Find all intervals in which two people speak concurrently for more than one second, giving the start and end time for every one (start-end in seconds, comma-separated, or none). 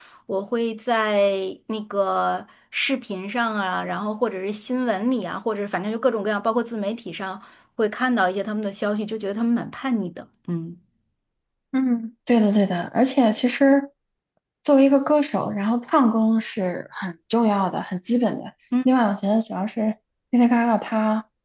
none